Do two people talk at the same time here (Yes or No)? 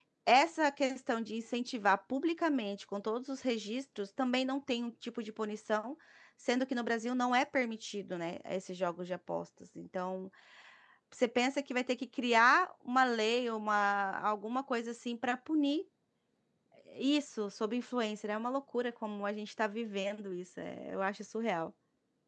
No